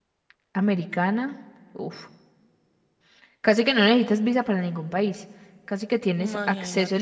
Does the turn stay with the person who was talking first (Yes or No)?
Yes